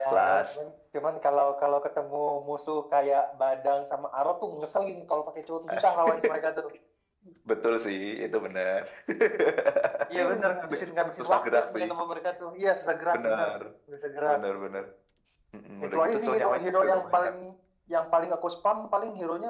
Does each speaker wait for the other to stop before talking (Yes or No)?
No